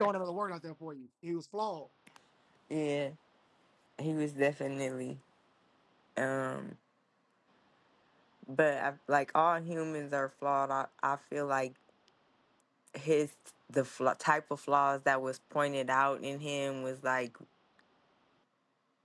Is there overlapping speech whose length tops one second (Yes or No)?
No